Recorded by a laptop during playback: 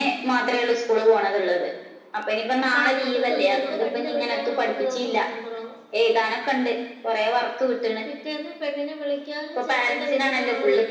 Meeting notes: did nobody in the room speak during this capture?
No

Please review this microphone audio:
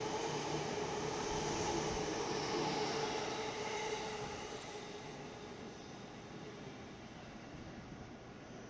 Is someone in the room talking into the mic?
No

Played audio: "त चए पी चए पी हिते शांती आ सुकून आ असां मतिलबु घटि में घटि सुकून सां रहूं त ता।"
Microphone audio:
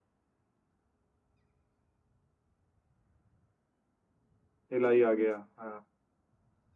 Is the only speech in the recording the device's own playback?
No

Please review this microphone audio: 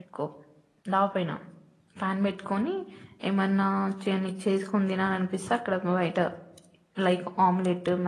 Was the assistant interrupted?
Yes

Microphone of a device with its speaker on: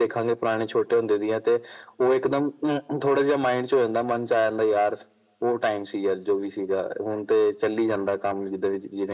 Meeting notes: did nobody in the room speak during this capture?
Yes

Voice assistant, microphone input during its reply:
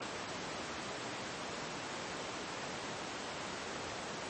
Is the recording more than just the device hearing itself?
No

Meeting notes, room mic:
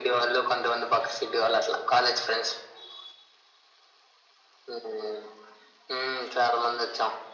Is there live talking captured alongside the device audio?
No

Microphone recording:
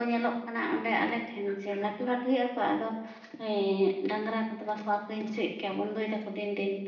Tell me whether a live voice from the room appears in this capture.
No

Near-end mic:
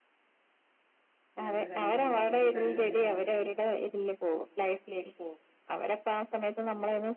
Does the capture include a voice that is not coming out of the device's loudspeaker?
Yes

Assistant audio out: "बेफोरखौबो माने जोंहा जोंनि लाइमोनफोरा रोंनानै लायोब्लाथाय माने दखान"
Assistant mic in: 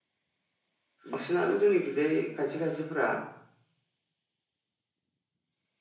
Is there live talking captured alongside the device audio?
Yes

